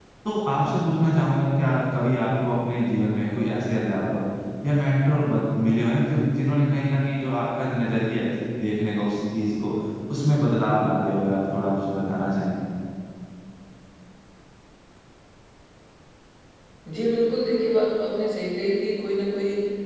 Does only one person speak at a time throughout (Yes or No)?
Yes